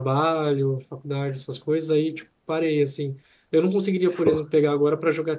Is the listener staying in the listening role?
Yes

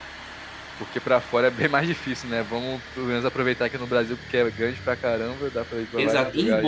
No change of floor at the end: No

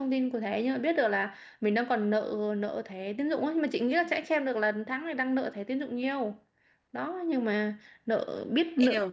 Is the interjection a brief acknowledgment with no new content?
No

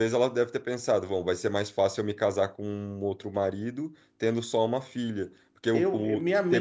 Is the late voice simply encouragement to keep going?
No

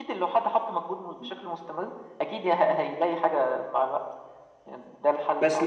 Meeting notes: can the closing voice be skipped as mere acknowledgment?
No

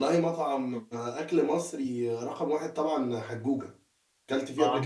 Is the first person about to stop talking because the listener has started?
Yes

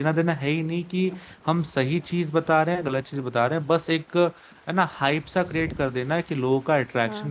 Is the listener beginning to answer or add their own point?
No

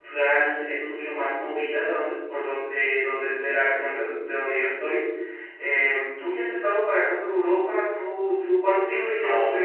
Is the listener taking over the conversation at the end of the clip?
Yes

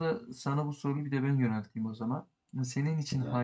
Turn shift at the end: No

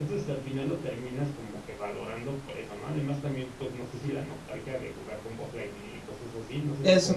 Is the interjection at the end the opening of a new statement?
Yes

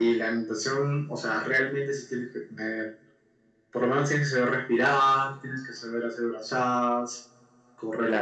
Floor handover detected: Yes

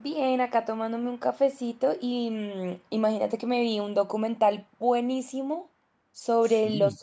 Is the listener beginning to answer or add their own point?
No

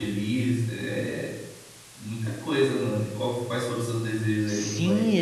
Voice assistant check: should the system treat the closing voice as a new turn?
Yes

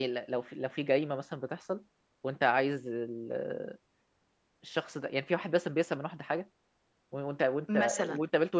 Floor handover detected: No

